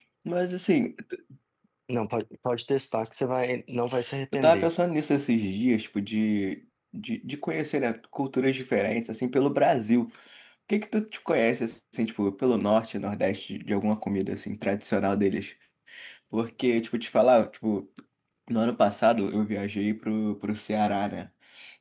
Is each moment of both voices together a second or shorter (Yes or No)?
Yes